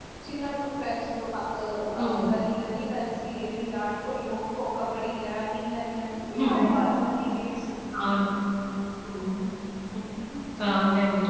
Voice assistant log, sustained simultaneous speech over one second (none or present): none